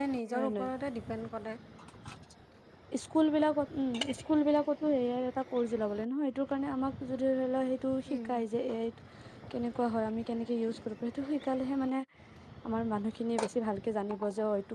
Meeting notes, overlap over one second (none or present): none